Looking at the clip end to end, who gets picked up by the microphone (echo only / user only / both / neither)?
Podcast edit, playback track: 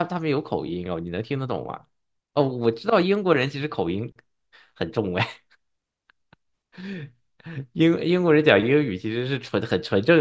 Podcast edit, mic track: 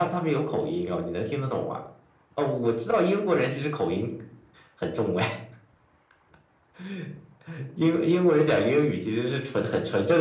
echo only